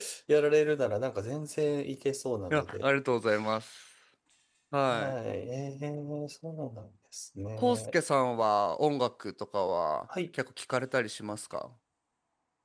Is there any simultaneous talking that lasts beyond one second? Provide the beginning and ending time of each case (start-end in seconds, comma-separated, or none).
none